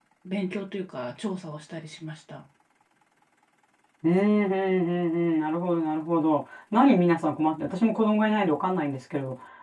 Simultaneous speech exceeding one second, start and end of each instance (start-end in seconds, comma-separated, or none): none